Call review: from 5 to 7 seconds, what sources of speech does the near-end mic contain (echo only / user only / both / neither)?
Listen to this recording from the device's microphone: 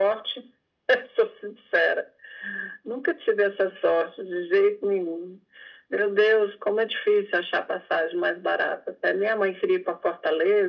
echo only